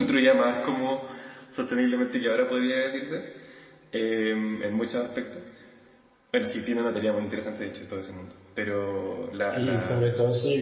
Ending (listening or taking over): taking over